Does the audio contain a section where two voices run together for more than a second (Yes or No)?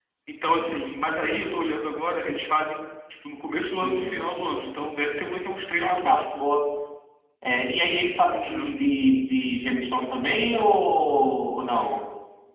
No